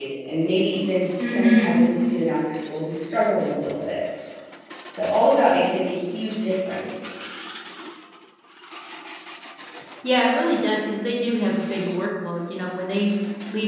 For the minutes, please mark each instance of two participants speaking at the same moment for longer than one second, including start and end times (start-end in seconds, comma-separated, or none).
none